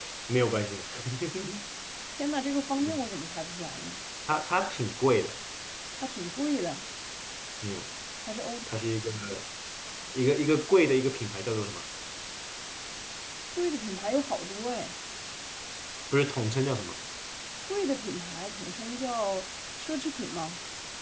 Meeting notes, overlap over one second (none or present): none